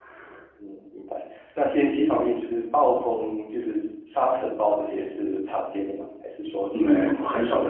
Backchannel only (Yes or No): No